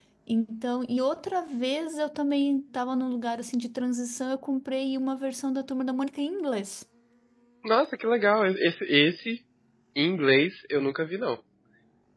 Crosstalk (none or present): none